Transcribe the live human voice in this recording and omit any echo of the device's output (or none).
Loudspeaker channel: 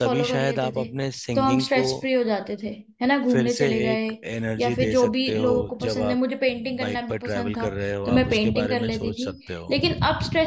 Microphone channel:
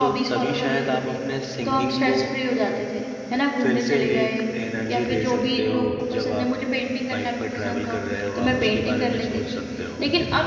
none